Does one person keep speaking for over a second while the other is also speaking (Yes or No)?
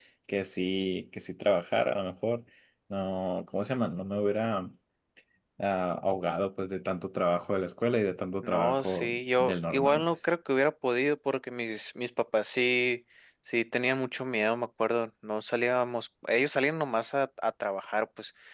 Yes